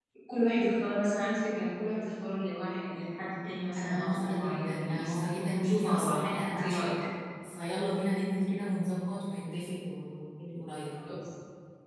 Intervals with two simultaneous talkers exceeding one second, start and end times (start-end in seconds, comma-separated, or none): 3.8-5.1, 5.5-6.9